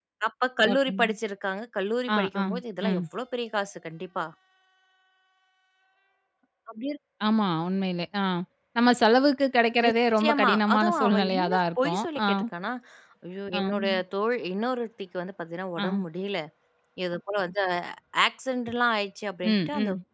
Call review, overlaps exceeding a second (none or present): present